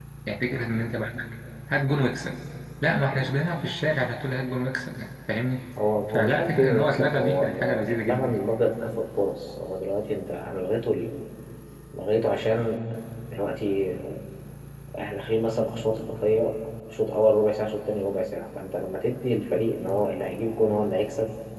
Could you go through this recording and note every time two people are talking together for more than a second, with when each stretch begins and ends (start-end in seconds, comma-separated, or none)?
6.1-8.4